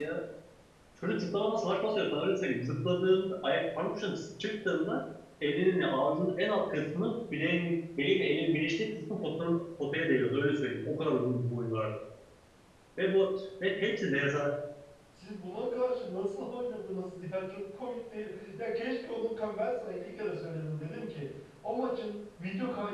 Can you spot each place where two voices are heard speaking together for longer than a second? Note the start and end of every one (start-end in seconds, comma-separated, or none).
none